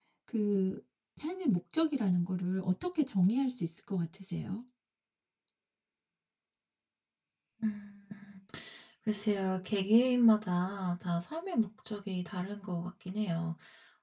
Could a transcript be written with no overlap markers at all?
Yes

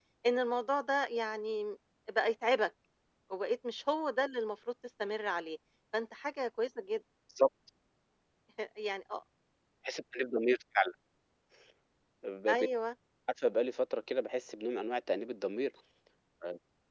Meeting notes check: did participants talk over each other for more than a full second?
No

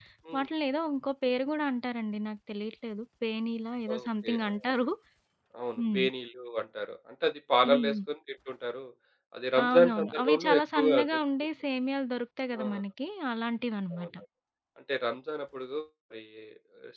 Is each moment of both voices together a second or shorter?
No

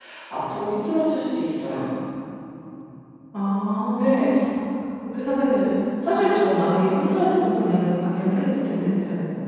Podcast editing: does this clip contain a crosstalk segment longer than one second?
No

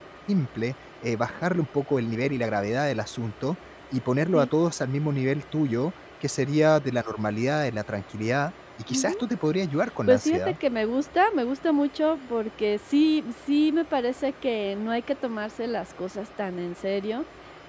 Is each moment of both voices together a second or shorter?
Yes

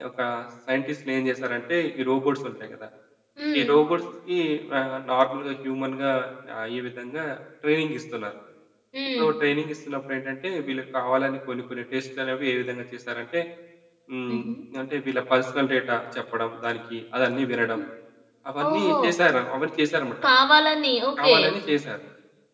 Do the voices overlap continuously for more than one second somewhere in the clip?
No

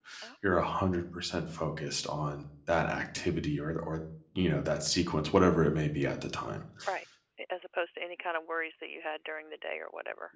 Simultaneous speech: No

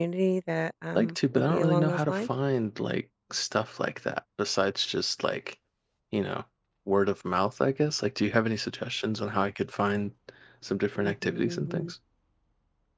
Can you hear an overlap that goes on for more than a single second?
Yes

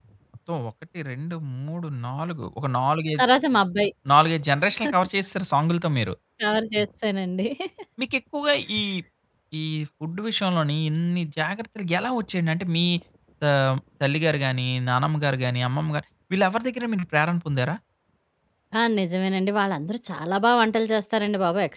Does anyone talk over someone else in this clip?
No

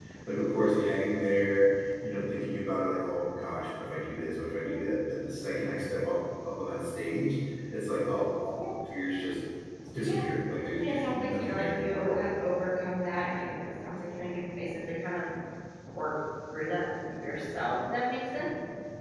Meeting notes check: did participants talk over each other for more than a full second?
Yes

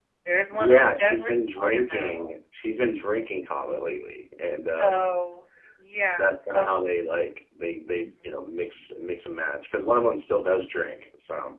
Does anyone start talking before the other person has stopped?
Yes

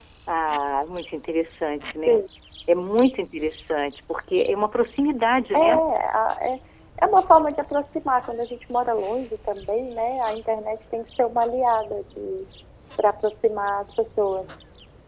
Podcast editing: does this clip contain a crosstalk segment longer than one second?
No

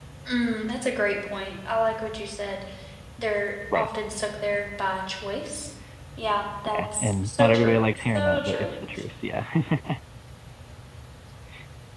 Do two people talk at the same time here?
Yes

